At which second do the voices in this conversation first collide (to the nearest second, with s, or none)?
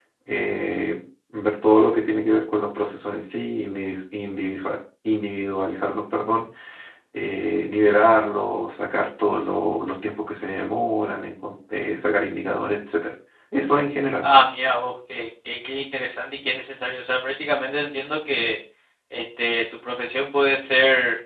none